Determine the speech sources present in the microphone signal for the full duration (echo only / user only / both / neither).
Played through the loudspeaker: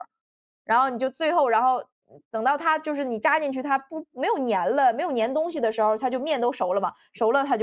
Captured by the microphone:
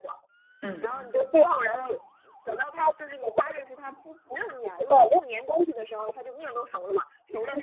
both